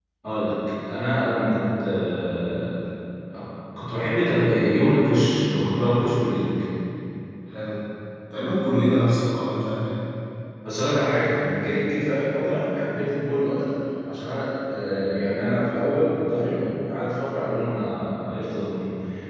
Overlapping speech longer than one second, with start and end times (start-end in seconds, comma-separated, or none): none